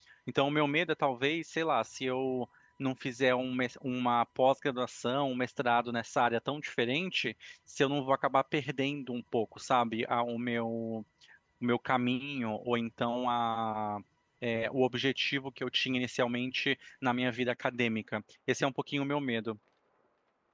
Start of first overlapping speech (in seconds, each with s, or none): none